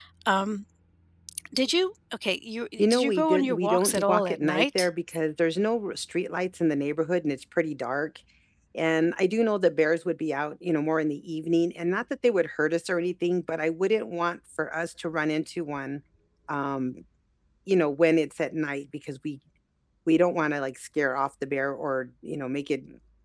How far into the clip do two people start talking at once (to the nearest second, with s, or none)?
3 s